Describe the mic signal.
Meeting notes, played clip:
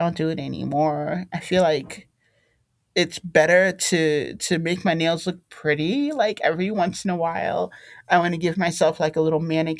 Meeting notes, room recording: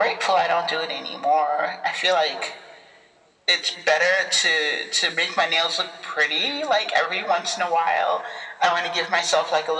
echo only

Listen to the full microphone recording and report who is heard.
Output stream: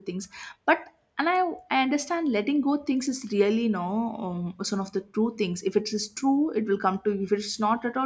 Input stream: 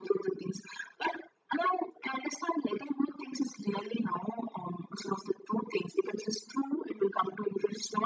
echo only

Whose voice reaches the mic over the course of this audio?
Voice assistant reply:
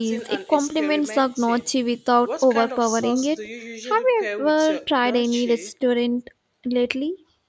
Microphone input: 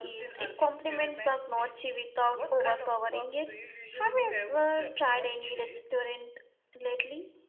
echo only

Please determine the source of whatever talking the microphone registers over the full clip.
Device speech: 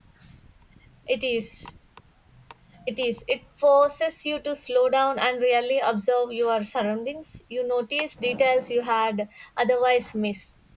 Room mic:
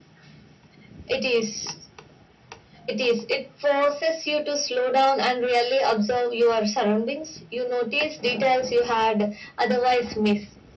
echo only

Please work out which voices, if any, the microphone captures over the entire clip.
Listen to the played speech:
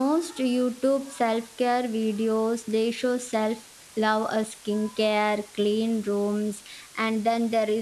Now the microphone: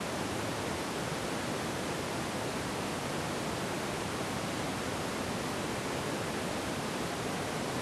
neither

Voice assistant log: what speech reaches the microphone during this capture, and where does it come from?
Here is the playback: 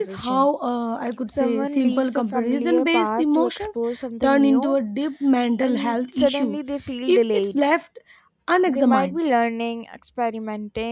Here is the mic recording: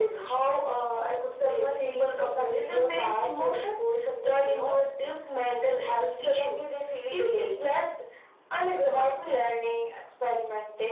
echo only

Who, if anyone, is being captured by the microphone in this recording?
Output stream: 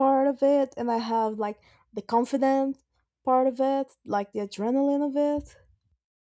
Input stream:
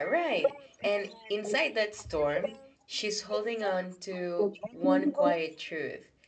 both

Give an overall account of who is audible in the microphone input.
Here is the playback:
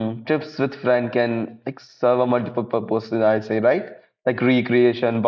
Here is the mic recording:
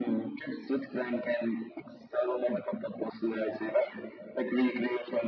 echo only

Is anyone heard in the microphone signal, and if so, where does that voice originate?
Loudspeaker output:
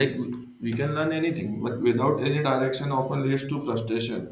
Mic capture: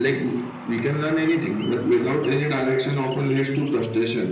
echo only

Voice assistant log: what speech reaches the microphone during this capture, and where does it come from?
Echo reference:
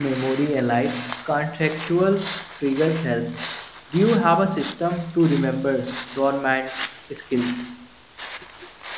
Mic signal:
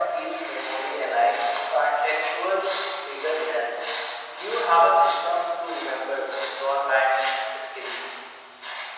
echo only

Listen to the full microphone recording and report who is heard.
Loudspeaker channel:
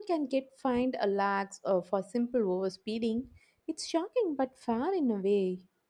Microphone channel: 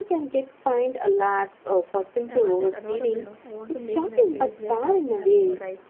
both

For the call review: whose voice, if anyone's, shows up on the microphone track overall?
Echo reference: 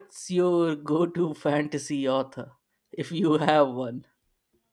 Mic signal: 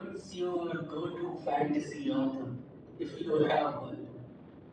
echo only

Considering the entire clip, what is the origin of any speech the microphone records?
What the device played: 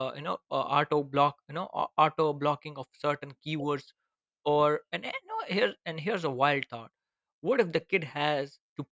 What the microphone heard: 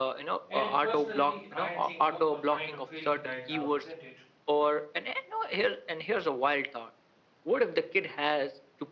both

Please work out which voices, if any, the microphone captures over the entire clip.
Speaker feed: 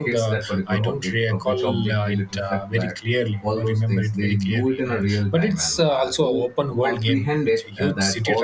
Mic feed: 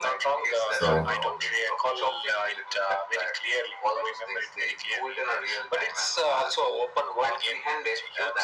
both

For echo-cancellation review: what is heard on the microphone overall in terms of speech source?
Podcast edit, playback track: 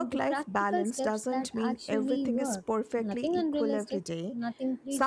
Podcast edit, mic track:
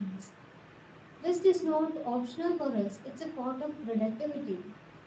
user only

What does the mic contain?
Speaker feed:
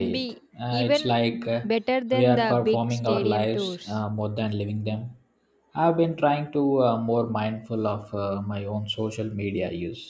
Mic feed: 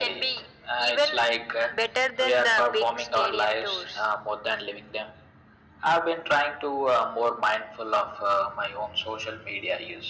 echo only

